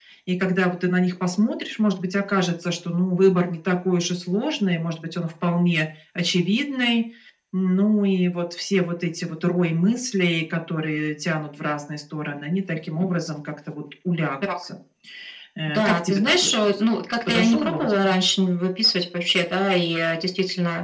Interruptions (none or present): present